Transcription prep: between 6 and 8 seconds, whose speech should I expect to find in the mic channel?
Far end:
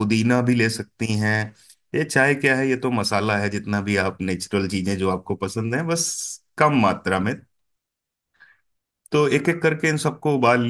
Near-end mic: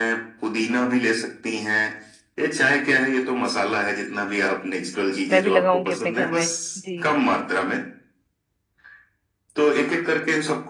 both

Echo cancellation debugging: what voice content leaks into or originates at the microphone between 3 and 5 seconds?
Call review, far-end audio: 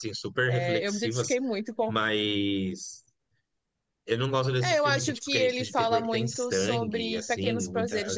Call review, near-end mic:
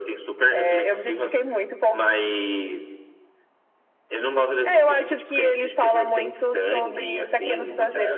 echo only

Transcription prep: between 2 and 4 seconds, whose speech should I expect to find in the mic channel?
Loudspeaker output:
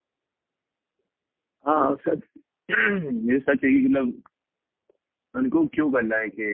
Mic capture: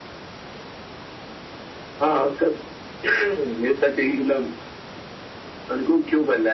echo only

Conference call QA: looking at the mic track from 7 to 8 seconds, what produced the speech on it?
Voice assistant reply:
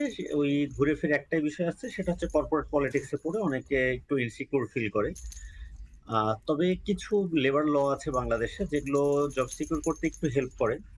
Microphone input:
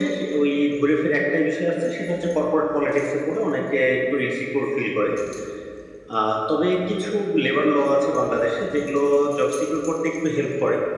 echo only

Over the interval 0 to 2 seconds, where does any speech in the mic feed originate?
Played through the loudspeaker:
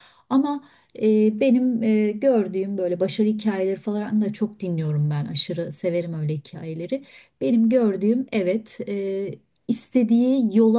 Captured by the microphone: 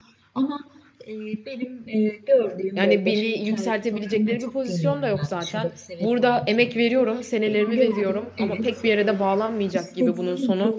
echo only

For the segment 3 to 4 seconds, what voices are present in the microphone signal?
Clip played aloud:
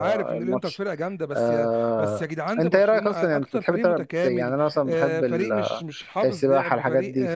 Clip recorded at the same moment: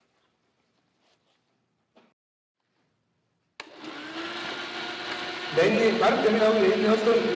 neither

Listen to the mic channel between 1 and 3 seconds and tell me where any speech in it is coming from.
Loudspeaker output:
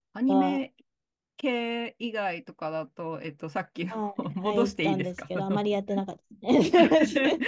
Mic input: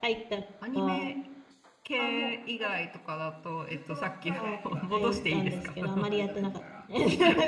both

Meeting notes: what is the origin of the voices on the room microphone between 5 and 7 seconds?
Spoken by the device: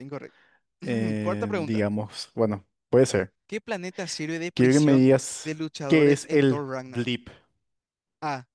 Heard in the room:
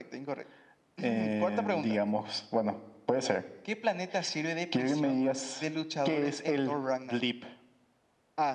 echo only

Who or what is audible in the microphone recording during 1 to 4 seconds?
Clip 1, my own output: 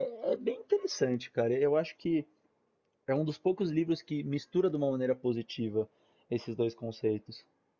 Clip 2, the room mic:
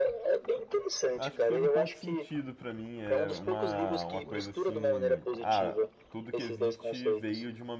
both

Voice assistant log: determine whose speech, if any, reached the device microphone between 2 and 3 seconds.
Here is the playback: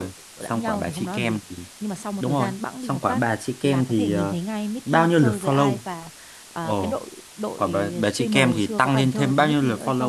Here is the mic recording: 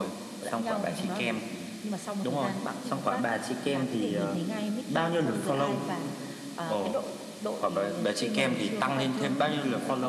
echo only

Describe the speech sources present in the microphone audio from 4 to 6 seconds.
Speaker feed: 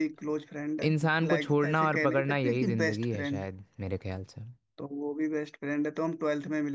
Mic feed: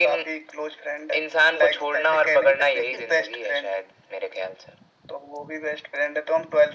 echo only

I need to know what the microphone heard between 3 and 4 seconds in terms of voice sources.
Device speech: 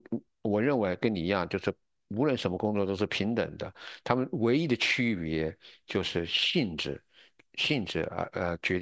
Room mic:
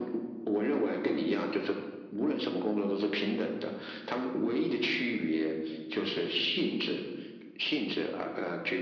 echo only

